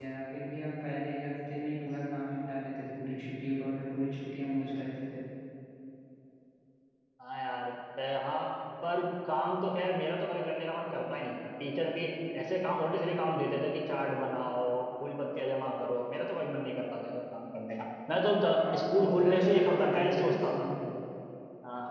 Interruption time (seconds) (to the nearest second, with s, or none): 19 s